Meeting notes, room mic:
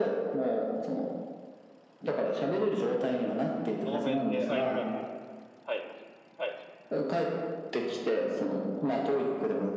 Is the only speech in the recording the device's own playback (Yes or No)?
No